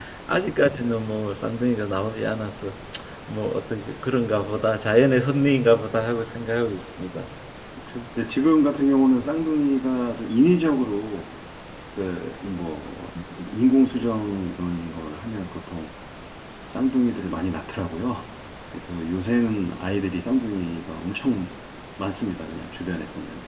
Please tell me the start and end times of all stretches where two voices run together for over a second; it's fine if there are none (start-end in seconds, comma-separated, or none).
none